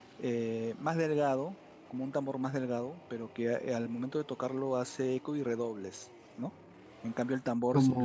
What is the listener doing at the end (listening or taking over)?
listening